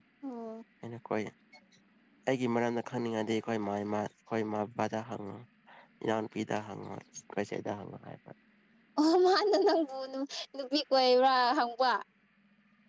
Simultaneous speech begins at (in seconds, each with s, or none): none